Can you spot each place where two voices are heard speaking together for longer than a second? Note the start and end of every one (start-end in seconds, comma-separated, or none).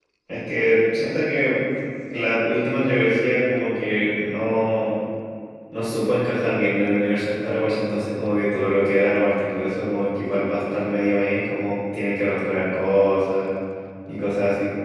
none